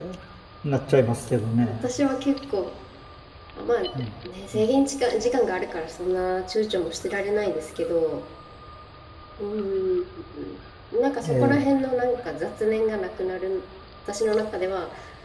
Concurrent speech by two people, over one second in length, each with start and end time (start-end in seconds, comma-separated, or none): none